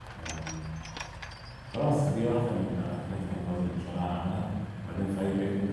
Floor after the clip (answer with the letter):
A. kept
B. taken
A